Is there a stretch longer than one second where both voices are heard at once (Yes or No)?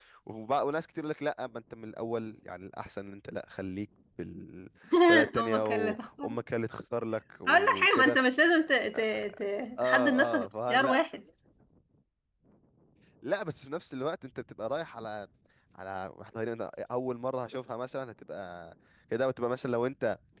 Yes